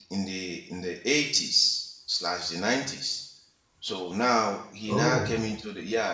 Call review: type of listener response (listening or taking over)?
listening